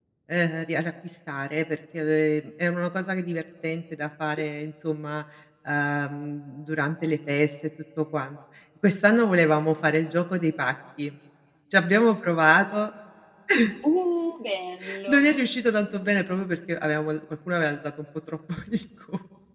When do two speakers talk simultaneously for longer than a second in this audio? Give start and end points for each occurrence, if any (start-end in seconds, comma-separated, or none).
none